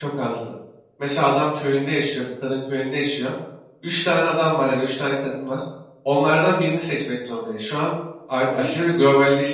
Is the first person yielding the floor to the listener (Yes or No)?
No